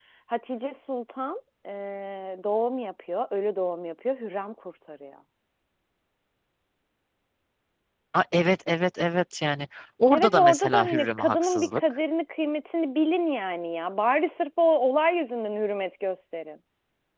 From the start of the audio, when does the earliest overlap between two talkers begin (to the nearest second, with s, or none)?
10 s